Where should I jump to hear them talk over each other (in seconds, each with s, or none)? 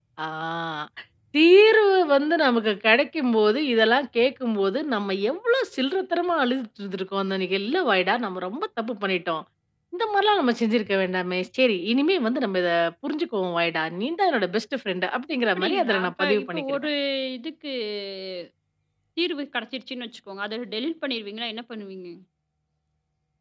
15.6 s